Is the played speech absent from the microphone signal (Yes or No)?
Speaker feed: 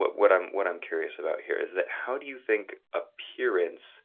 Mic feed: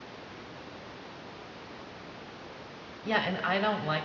Yes